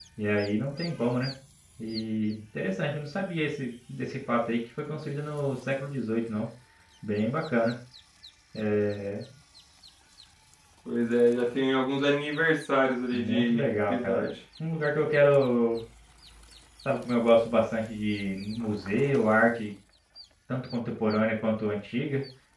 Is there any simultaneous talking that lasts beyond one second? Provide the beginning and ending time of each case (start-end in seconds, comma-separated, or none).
13.1-14.3